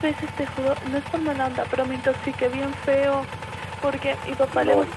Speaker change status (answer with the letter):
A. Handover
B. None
B